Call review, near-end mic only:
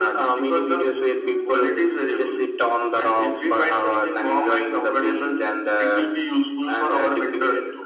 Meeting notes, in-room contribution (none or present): none